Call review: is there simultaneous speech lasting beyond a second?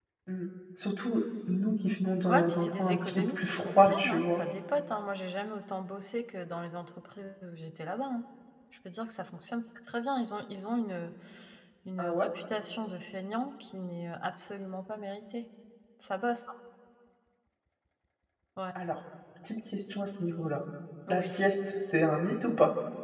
Yes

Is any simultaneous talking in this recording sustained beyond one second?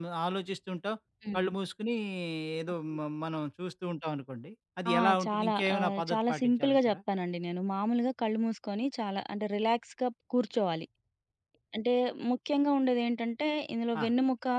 Yes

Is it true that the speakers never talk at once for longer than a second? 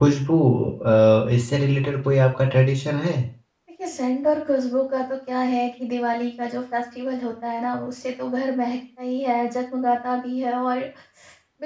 Yes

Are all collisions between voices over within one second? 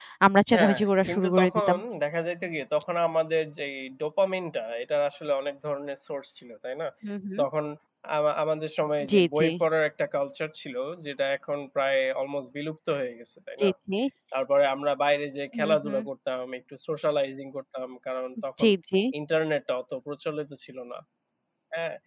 No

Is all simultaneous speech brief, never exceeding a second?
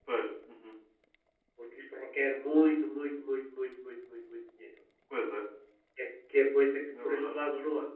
Yes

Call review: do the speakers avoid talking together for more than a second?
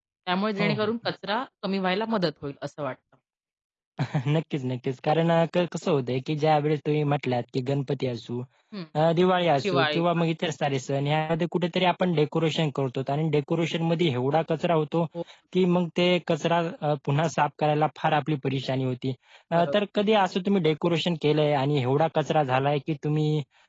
Yes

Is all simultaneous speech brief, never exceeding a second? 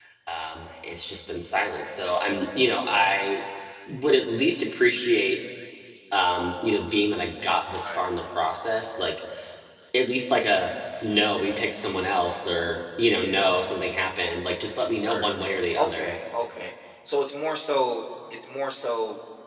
No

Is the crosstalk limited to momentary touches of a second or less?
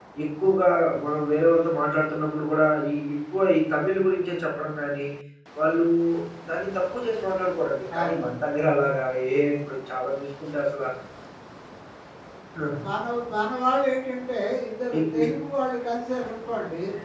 Yes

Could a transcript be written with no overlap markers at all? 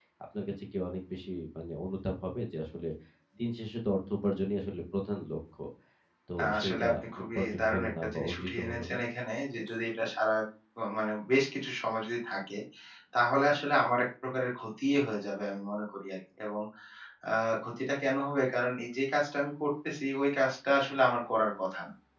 No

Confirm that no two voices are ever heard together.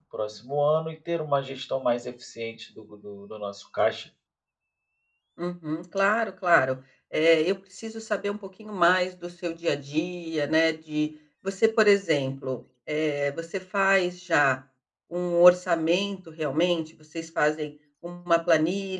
Yes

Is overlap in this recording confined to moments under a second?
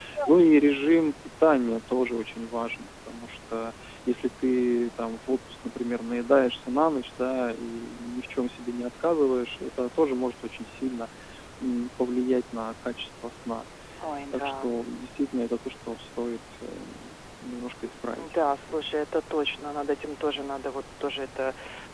Yes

